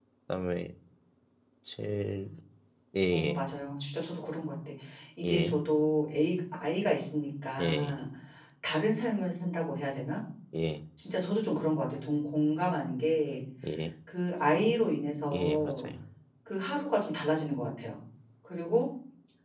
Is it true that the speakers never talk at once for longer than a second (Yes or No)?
Yes